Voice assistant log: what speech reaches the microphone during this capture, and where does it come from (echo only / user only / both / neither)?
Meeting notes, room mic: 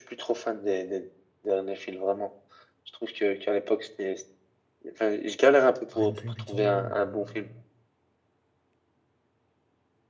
both